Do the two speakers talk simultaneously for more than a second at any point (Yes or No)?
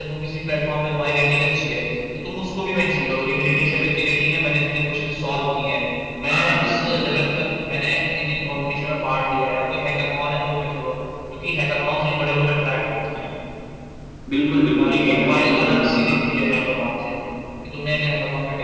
Yes